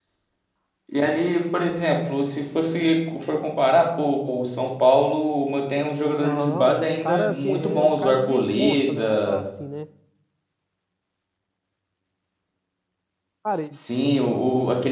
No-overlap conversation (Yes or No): No